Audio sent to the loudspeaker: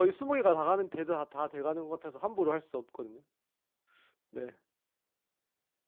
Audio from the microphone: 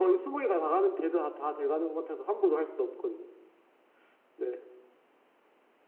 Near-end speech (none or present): none